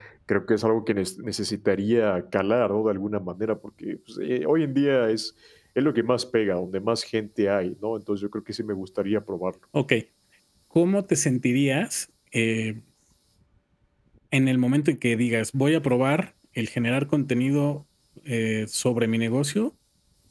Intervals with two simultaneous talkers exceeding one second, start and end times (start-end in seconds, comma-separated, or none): none